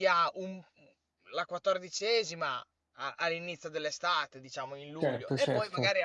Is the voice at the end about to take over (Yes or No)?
No